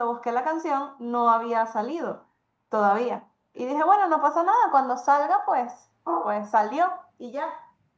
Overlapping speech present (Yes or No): No